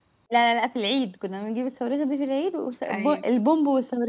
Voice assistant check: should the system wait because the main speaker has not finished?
Yes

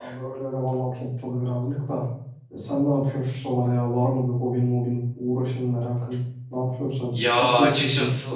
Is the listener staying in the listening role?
No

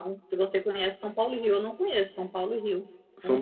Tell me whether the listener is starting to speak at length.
Yes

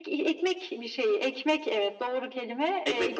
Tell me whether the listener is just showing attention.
Yes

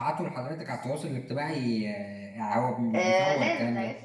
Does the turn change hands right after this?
Yes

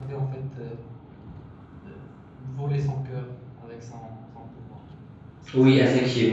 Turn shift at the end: Yes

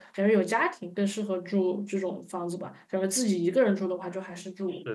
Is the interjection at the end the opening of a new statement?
Yes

